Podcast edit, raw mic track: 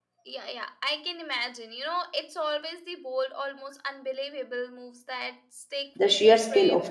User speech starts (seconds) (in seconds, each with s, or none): 5.9 s